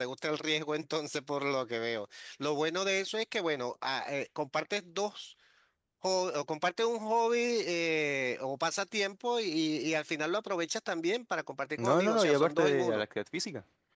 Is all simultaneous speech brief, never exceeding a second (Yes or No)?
No